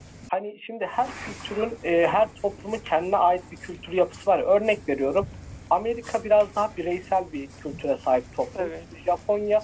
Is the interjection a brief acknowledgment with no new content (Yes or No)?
Yes